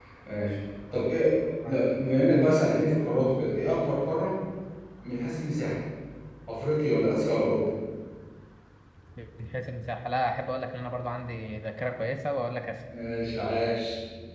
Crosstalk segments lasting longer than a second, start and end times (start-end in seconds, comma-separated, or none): none